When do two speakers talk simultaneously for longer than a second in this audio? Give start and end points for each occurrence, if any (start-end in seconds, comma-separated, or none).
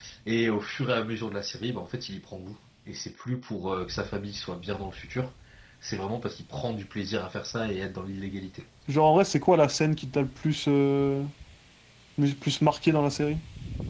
none